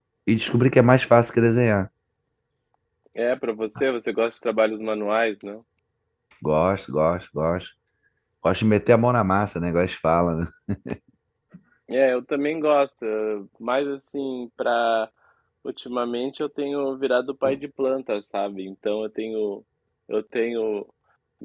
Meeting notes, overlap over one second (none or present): none